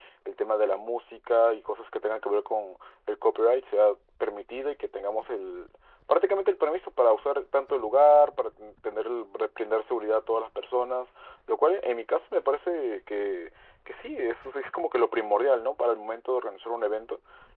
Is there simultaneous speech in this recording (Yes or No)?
No